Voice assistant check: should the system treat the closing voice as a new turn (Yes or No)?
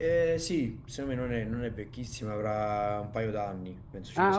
Yes